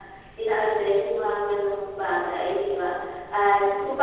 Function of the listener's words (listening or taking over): listening